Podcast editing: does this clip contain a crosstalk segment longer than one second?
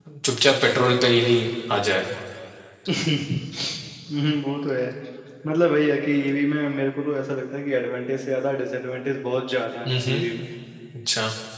No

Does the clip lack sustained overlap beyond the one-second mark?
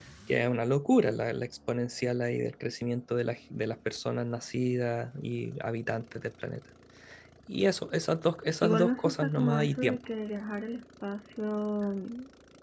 No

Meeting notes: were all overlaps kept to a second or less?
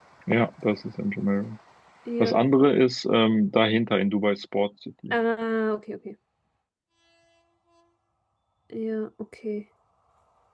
Yes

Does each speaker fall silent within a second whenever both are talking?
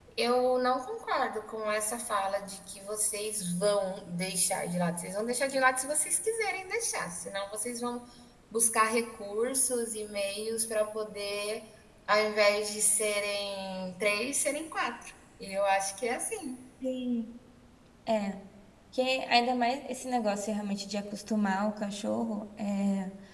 Yes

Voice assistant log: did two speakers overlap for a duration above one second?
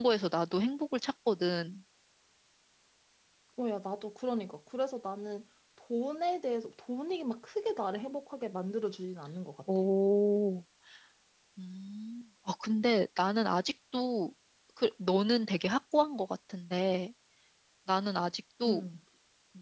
No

